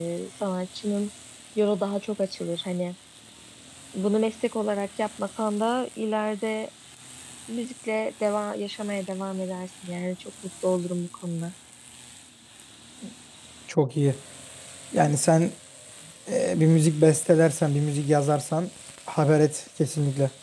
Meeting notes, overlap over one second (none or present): none